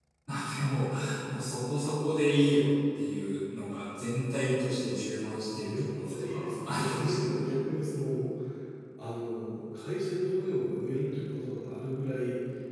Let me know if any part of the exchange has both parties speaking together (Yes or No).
Yes